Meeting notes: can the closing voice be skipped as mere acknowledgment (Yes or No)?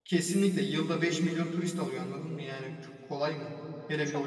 Yes